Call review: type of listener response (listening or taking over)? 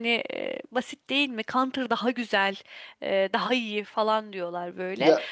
listening